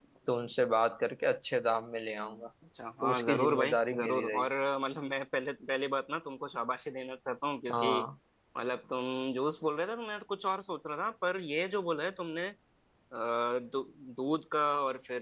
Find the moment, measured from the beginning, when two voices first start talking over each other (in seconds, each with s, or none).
3.0 s